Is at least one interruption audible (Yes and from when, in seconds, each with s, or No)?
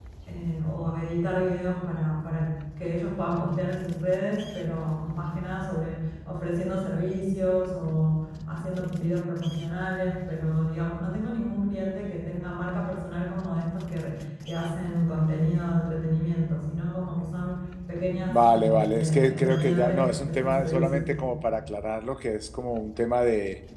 Yes, from 18.3 s